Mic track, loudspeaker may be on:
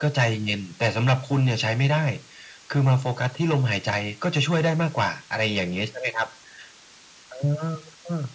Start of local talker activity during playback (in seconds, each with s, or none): none